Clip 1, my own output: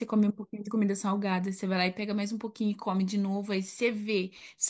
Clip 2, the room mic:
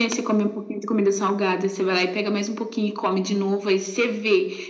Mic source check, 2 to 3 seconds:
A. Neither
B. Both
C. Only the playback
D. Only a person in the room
C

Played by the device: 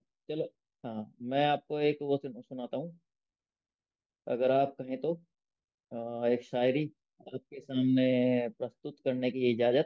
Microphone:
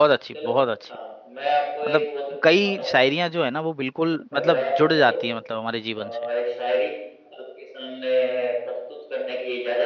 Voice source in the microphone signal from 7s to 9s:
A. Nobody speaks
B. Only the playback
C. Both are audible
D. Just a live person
B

